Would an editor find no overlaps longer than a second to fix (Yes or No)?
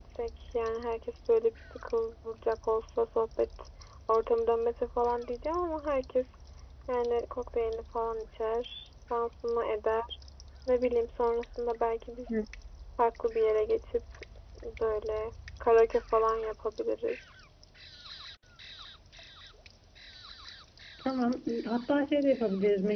Yes